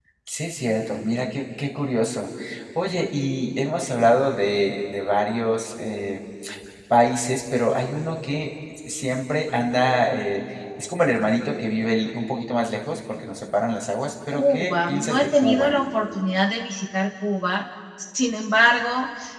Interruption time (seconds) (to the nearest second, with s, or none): 14 s